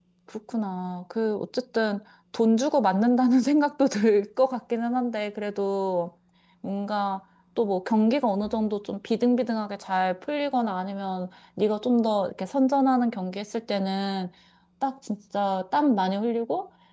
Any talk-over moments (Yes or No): No